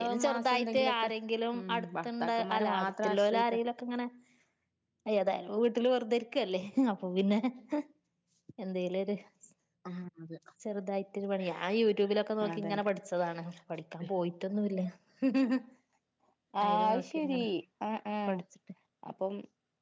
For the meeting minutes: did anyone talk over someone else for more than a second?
Yes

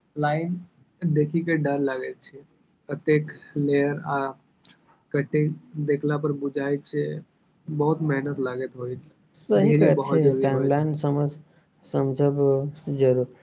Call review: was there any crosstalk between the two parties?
Yes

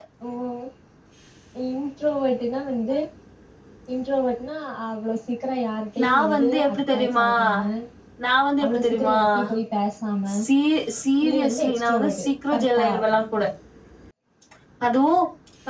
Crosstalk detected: Yes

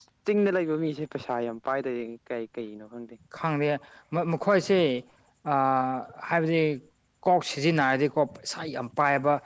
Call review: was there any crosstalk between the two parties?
No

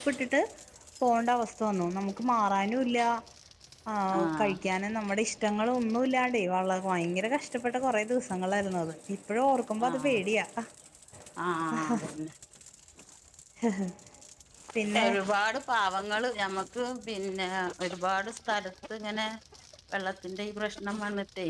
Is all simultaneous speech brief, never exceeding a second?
Yes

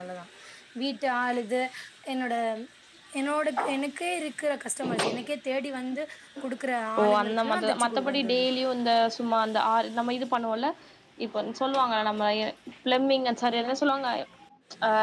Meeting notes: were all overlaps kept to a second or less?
No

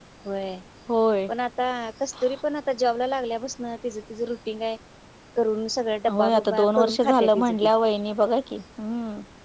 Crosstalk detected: Yes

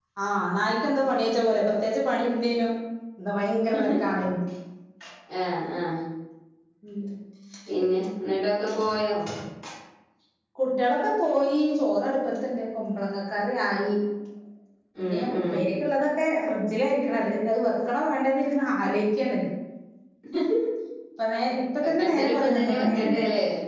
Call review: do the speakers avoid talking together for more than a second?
No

